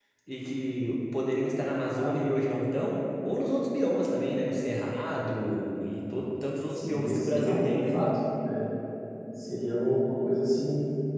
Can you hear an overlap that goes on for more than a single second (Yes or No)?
Yes